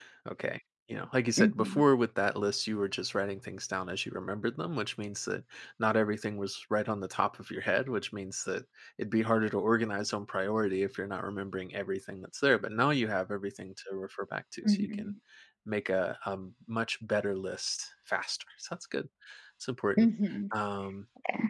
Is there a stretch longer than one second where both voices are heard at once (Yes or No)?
No